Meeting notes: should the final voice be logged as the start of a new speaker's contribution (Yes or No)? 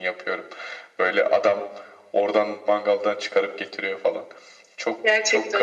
Yes